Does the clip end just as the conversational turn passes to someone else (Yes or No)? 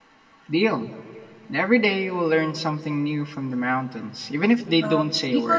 Yes